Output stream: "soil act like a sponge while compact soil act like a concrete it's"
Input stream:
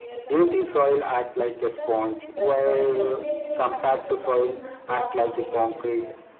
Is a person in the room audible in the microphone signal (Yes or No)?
Yes